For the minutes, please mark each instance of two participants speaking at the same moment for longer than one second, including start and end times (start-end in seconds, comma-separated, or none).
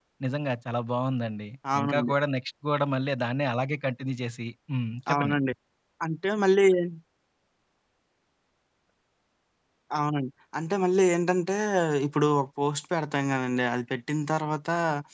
none